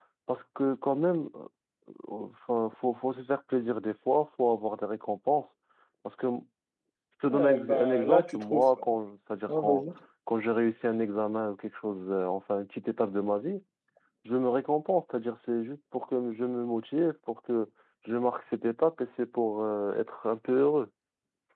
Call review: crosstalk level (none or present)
present